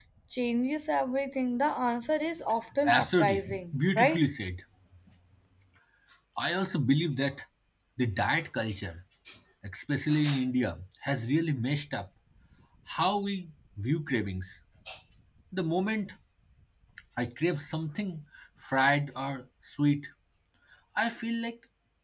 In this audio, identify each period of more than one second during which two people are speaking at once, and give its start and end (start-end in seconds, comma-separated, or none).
2.9-4.2